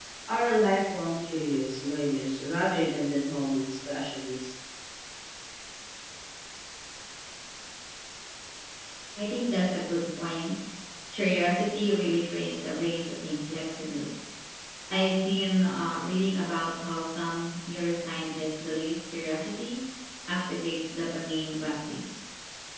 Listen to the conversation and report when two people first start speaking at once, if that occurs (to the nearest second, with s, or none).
none